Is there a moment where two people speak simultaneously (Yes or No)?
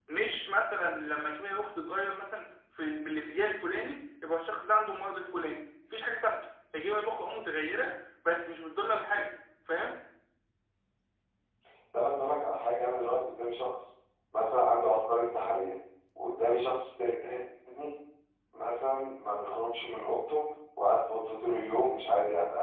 No